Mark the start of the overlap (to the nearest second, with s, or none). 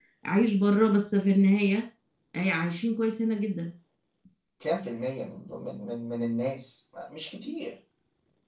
none